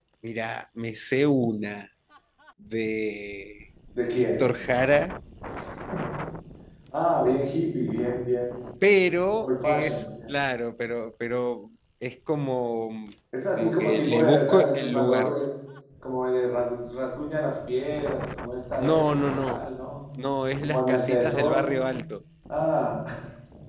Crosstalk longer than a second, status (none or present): present